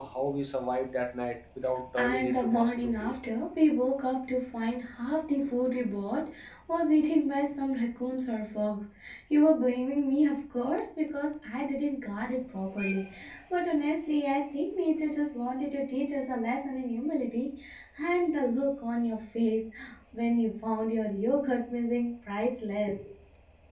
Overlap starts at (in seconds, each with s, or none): 2.0 s